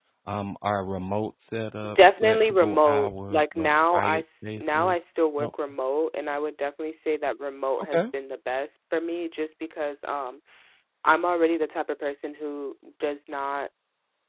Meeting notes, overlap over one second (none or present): present